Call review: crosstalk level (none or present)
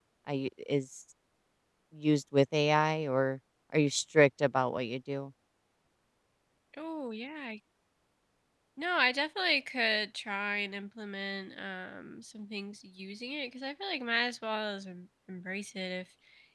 none